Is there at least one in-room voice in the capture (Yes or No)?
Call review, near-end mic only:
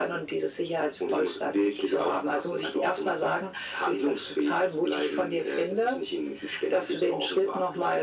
No